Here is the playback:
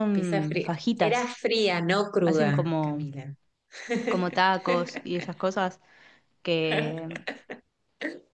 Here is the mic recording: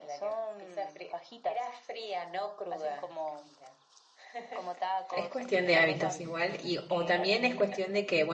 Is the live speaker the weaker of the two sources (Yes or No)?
No